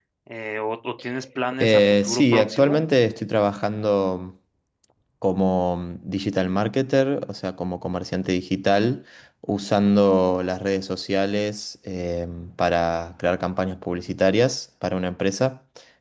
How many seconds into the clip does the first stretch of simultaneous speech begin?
2 s

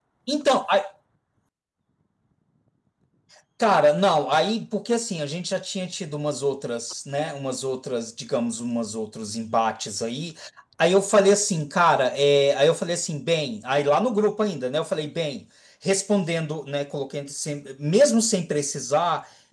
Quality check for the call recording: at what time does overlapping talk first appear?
none

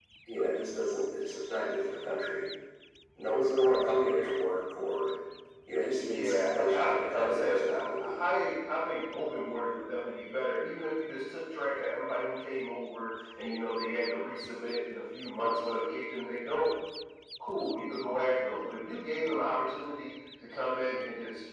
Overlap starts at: 6 s

